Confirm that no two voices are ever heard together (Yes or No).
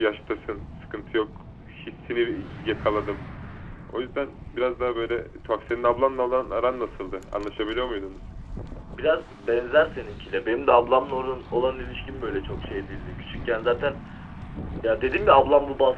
Yes